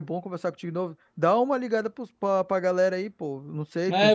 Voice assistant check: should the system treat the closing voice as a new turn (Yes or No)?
Yes